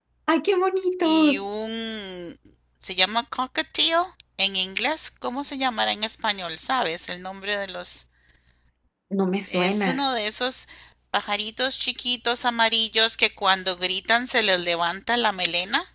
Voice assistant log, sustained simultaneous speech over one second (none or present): none